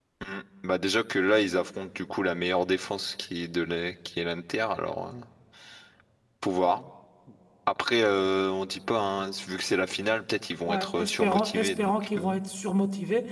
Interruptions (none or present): present